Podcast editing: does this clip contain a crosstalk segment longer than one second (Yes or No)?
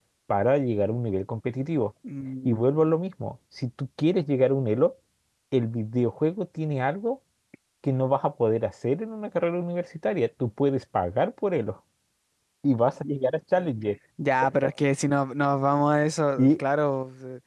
No